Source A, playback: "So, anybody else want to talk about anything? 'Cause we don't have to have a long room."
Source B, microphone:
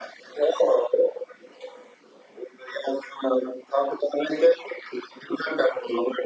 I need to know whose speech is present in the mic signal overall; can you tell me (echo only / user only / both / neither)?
echo only